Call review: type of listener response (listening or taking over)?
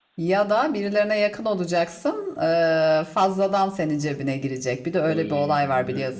taking over